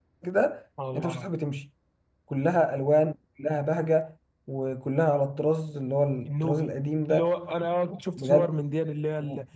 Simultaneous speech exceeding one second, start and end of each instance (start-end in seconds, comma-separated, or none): none